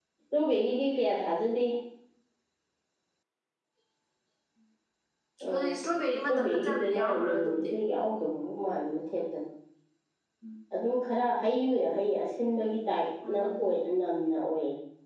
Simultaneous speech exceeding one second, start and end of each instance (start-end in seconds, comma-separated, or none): 6.3-7.7